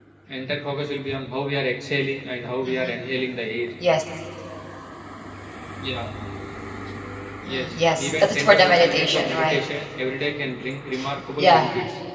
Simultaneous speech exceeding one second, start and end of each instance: 7.4-9.6

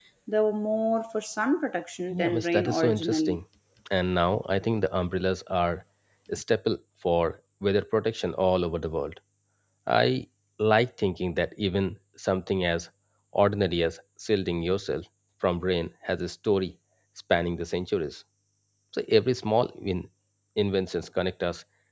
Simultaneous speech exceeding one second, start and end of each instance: 2.1-3.4

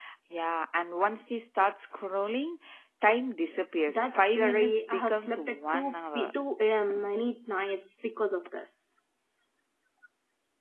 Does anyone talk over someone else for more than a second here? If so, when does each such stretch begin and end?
3.9-6.3

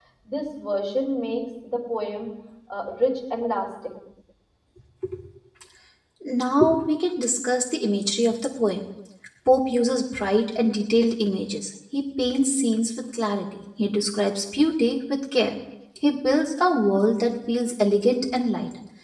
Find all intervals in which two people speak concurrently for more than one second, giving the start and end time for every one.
none

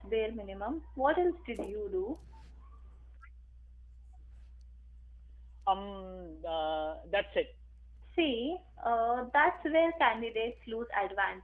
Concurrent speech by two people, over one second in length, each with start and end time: none

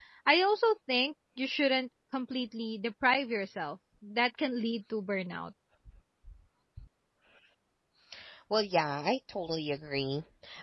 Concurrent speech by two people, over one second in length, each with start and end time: none

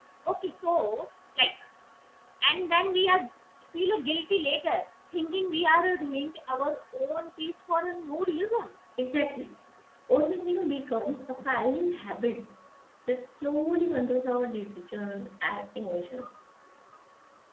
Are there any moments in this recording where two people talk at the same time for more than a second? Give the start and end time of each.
none

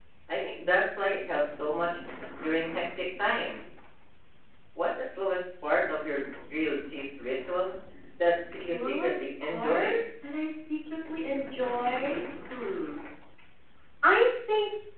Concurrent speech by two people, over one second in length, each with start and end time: 8.5-10.0

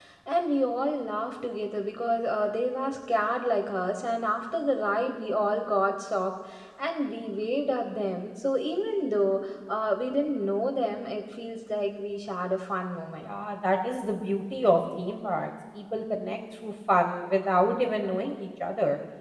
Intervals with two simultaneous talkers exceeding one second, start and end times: none

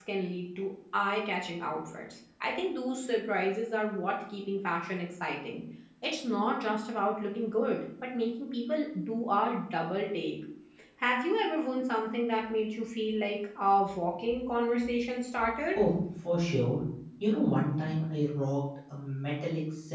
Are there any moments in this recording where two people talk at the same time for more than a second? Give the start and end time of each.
none

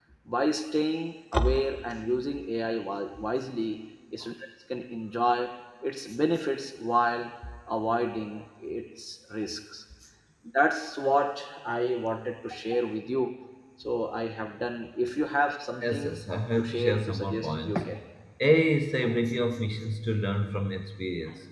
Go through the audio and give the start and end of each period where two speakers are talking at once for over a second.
16.6-17.8

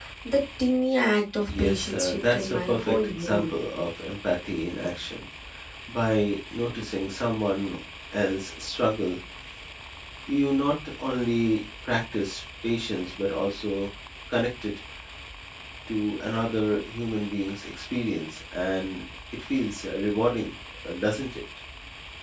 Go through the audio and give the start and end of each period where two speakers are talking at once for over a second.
1.5-3.5

